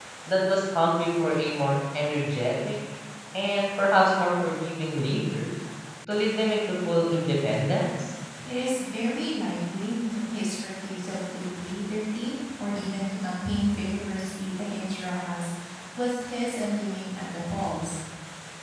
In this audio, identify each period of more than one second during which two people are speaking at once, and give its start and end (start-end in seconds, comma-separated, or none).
none